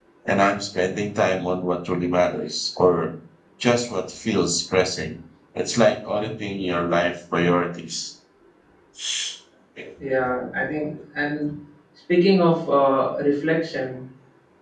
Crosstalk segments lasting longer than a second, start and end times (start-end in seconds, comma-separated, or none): none